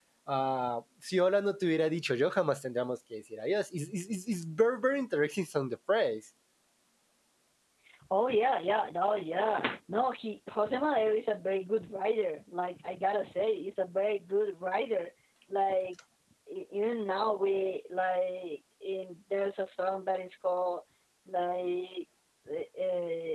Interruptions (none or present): none